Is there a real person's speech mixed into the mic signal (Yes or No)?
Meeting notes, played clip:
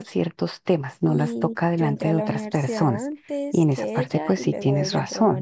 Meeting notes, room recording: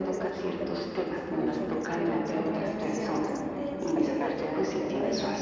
Yes